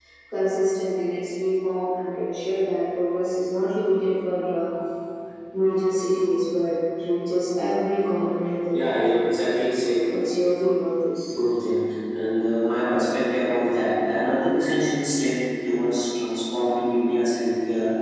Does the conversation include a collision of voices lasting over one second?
No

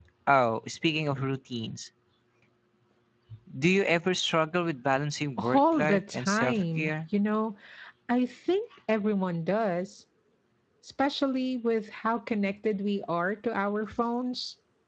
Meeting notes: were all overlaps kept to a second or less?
No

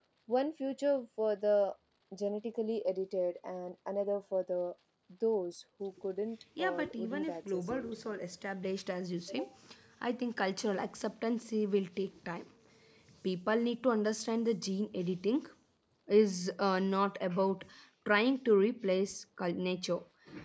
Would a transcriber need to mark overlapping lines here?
Yes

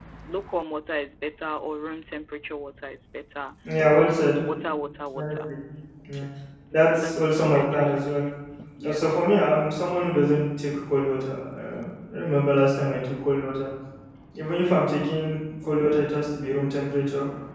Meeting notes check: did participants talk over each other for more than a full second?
Yes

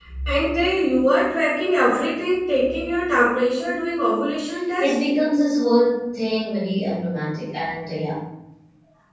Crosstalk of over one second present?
No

